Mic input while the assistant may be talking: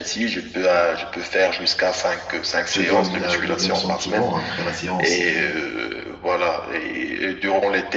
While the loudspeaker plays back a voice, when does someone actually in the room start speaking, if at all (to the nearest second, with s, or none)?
3 s